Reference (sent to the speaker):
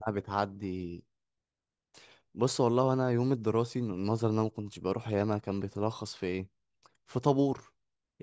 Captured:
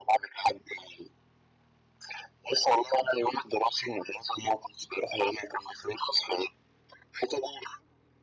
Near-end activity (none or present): none